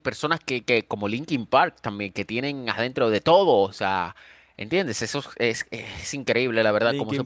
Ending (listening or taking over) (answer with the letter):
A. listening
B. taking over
B